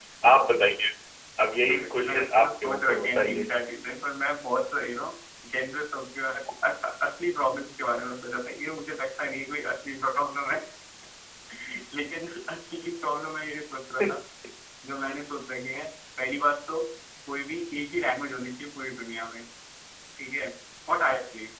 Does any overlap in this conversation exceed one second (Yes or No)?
Yes